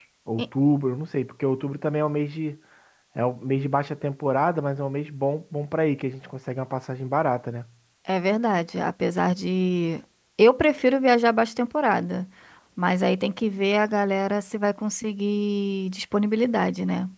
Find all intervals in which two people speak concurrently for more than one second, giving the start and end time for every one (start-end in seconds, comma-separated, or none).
none